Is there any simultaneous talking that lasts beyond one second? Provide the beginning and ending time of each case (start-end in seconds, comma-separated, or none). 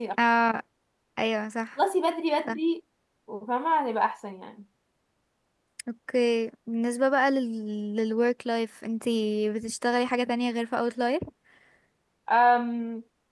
none